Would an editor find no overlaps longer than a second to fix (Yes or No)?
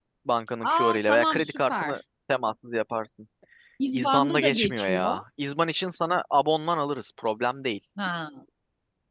No